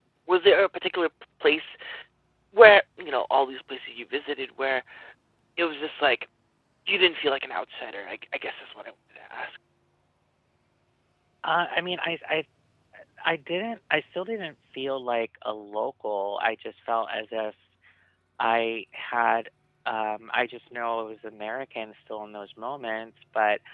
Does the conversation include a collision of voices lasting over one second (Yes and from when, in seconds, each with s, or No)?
No